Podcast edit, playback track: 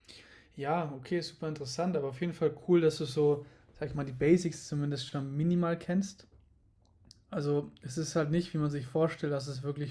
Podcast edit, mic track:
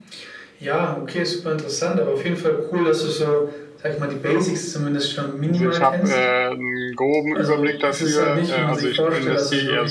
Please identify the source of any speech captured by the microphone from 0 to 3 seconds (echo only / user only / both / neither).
echo only